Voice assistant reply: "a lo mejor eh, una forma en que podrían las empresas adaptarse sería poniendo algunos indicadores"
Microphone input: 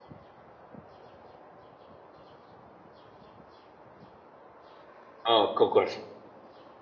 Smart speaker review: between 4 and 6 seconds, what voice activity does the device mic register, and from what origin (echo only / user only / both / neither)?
user only